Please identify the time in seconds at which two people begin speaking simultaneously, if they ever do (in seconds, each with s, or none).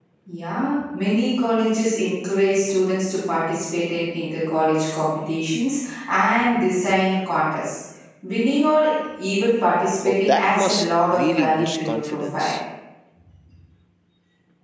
10.1 s